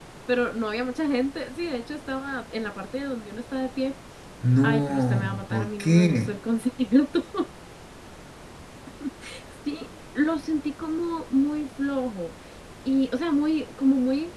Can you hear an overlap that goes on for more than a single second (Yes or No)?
Yes